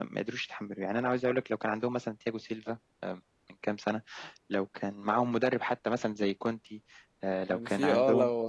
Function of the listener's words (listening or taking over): taking over